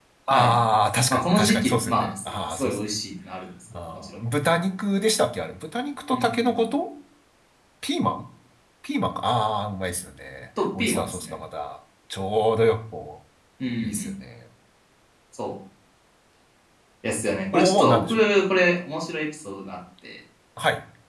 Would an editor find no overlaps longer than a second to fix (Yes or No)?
No